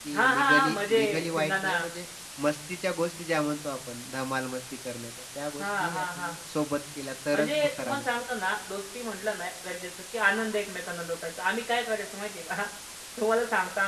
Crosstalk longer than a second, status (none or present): present